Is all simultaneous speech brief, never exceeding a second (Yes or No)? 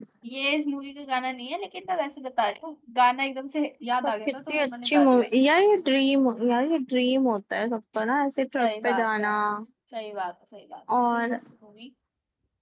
No